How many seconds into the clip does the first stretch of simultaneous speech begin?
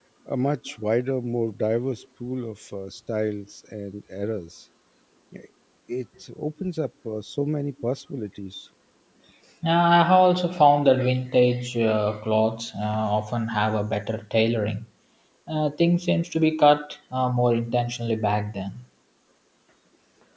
none

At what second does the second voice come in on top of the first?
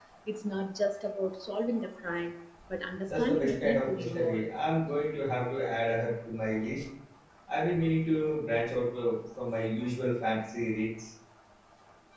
3 s

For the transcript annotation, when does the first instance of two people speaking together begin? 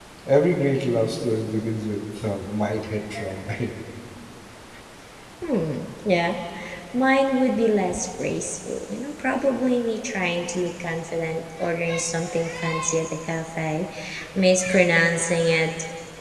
none

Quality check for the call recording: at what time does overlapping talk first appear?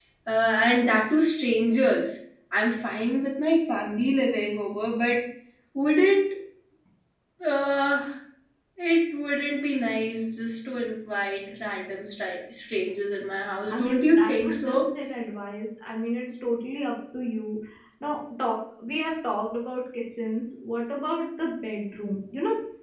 14 s

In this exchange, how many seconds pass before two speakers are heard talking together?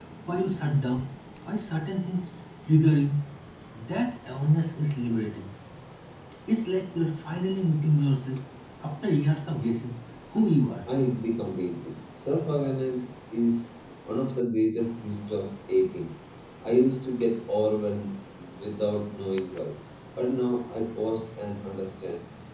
none

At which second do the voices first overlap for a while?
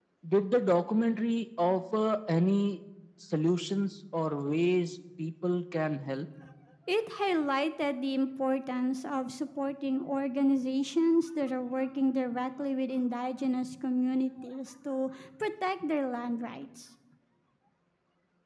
none

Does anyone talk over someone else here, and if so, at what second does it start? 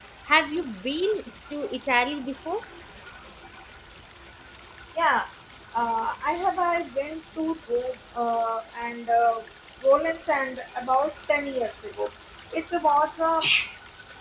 none

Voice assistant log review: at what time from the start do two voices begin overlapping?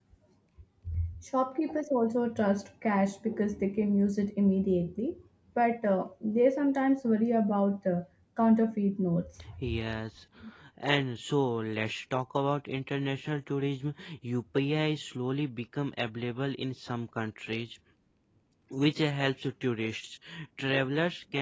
none

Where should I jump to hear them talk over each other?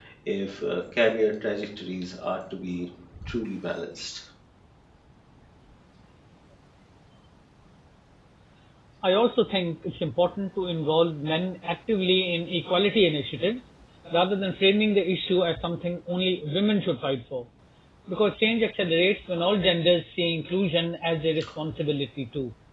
none

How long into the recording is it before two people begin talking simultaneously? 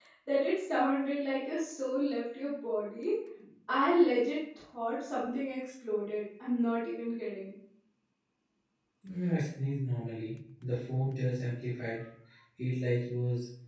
none

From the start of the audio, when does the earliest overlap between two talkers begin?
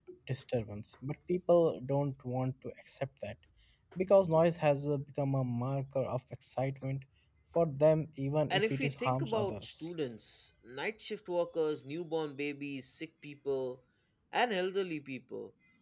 9 s

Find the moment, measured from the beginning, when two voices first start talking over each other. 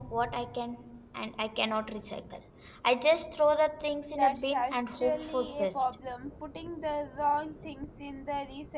4 s

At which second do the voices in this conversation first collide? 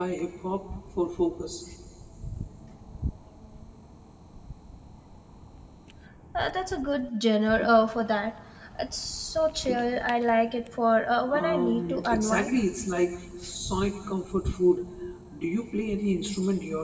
11 s

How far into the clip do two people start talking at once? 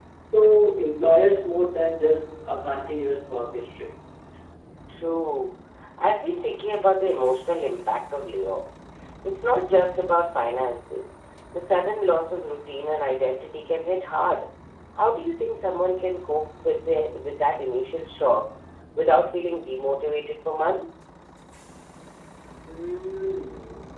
none

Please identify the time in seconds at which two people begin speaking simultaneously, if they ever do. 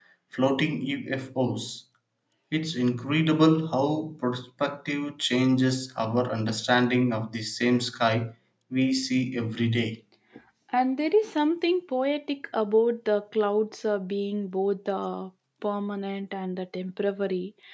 none

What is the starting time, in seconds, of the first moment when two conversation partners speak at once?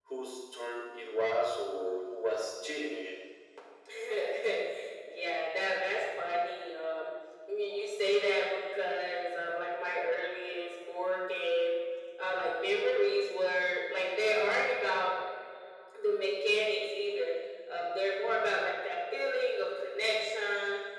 none

